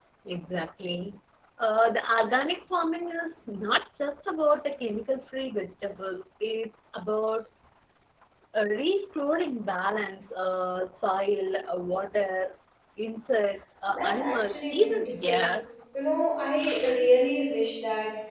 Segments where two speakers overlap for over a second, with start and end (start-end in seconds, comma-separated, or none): 14.0-15.5